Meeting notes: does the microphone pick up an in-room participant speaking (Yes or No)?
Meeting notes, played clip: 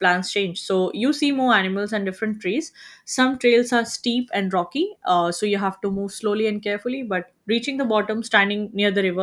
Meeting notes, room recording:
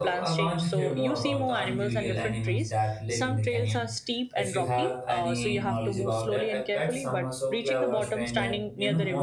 Yes